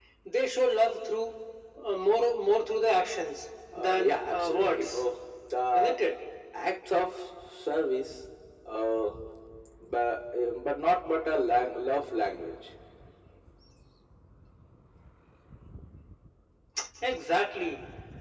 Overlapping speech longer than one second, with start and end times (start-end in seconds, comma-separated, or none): 3.8-5.0